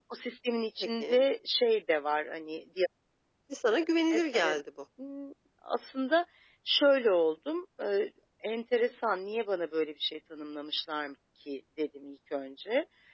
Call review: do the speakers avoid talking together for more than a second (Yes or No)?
Yes